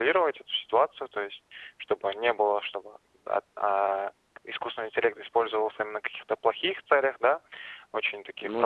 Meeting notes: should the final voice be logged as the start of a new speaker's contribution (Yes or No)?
No